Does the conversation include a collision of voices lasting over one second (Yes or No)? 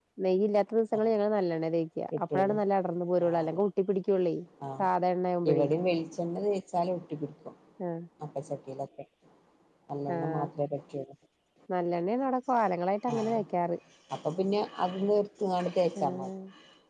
No